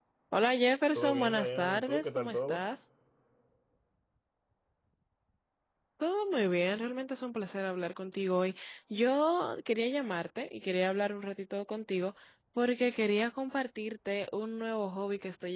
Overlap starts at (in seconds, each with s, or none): 0.9 s